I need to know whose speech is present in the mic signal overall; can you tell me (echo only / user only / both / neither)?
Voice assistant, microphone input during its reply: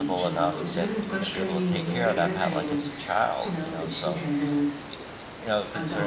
both